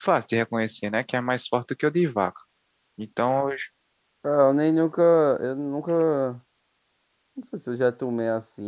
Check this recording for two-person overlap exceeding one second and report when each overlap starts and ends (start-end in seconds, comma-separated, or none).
none